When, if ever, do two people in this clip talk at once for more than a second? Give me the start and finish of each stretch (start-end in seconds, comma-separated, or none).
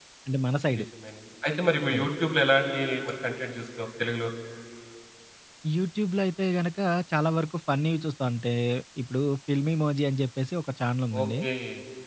none